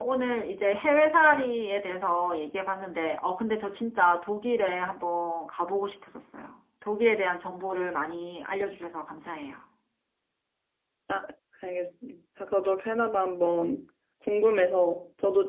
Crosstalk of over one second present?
No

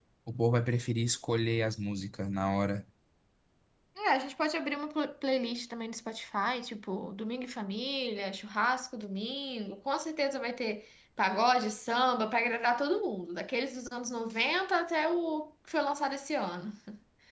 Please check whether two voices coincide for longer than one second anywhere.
No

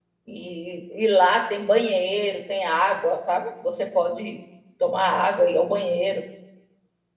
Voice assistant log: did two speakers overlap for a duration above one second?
No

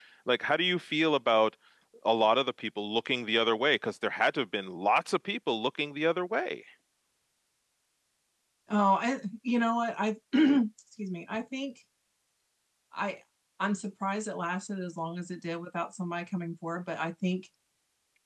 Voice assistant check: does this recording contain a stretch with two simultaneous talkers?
No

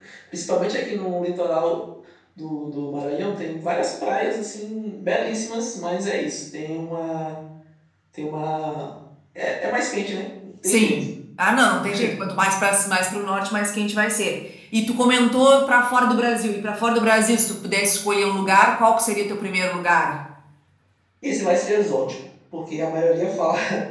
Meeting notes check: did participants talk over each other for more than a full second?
No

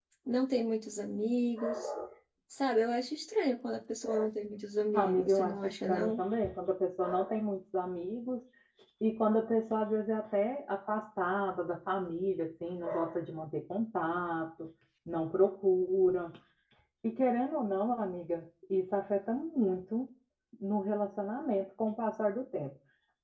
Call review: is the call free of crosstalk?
No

